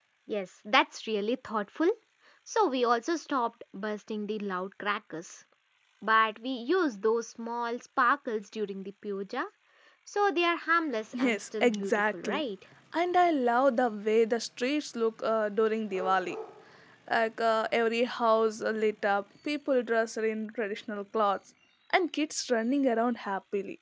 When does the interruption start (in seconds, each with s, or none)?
11.1 s